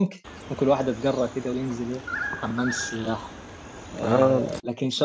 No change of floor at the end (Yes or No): Yes